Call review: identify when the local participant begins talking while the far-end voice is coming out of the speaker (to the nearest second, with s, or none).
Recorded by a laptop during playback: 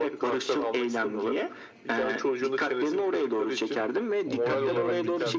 4 s